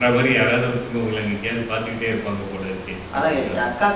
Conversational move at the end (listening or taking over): taking over